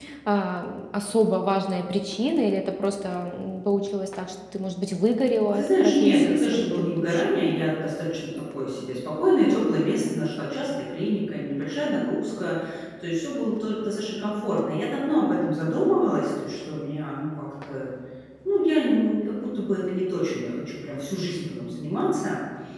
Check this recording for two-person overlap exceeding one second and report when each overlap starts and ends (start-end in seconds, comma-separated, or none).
5.5-7.3